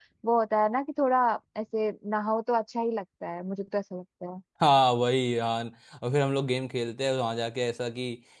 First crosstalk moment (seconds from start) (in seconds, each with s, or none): none